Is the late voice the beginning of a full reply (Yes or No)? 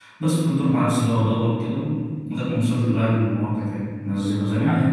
No